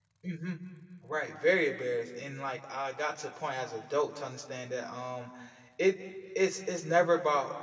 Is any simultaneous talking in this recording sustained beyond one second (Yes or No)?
No